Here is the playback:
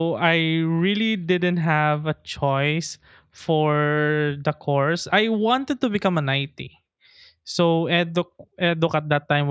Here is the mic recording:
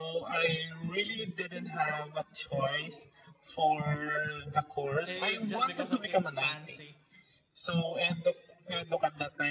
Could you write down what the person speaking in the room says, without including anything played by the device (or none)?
It's just because of it's fancy,